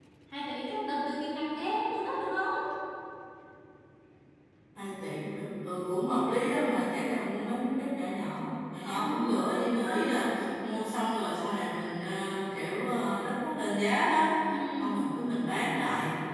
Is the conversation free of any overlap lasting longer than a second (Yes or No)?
Yes